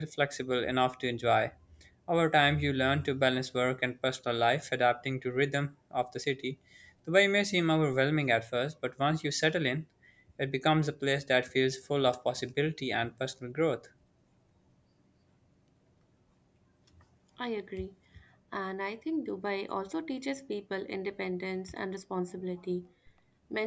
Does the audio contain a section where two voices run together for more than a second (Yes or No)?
No